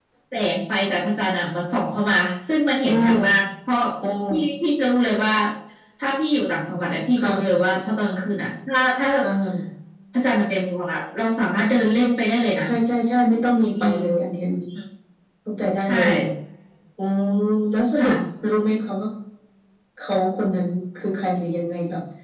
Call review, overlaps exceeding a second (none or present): none